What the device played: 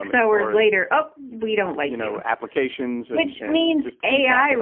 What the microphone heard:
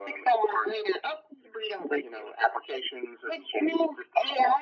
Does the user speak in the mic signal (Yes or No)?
No